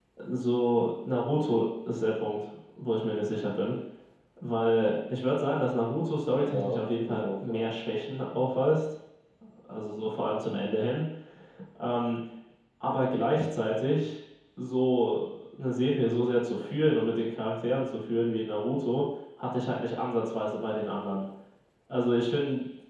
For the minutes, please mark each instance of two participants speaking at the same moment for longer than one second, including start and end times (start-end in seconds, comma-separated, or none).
6.3-7.7